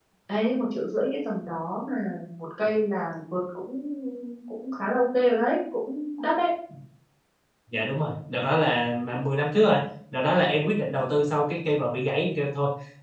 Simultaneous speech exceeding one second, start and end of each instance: none

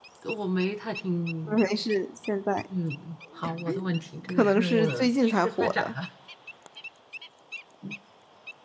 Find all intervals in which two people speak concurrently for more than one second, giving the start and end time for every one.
4.4-5.9

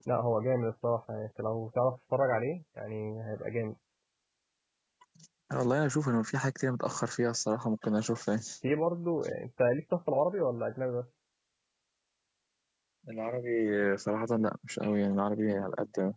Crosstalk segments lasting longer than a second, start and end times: none

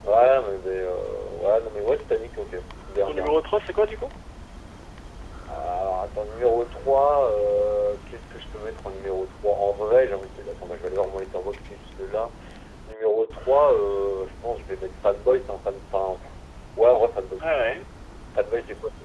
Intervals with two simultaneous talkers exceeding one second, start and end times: none

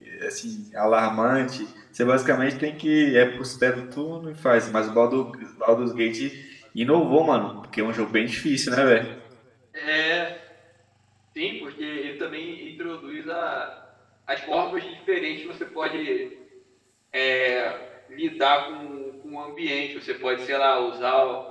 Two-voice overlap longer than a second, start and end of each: none

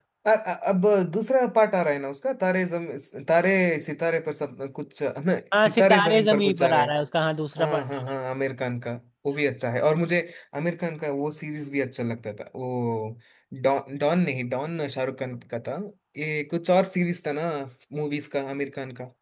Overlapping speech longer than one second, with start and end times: 5.6-6.9

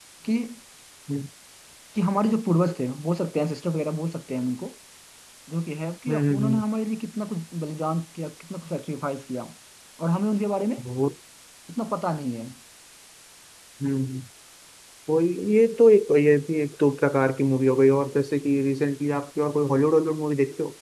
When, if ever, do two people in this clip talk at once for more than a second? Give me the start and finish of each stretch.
none

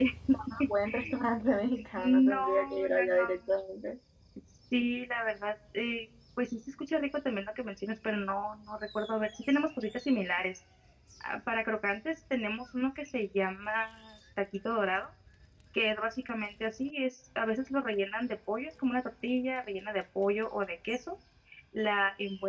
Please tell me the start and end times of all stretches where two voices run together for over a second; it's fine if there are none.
2.0-3.3

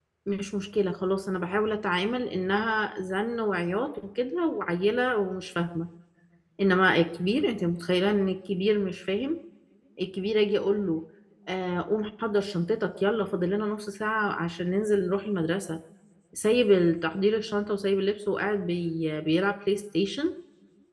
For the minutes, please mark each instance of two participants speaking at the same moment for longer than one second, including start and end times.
none

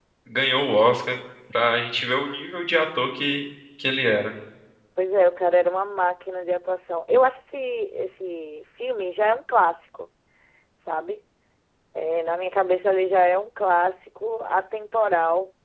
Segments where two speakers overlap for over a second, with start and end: none

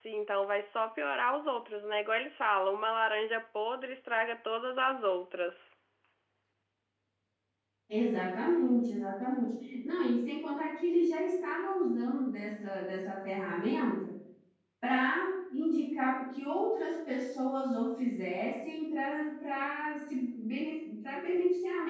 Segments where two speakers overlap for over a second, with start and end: none

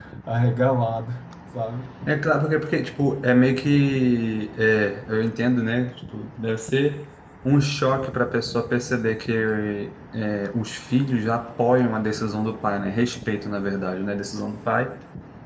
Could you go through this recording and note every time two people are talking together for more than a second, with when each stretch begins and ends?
none

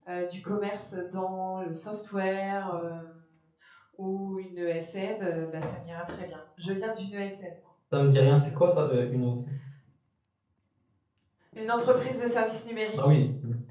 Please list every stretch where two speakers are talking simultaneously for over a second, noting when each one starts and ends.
none

